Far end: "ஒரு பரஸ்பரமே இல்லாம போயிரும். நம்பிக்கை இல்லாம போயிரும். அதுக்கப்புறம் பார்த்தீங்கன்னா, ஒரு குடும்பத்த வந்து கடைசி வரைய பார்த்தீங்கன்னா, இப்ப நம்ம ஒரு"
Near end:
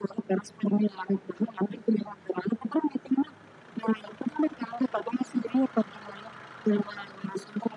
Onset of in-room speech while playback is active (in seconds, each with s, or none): none